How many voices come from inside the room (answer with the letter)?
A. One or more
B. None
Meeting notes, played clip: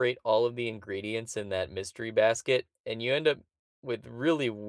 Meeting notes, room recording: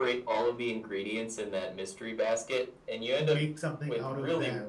A